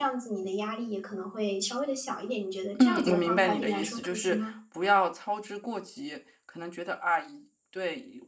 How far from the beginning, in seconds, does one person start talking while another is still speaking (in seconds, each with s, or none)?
2.7 s